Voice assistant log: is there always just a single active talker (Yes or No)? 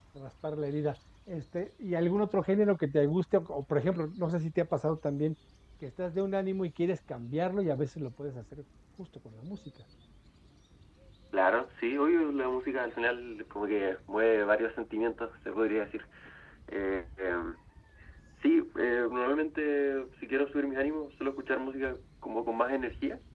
Yes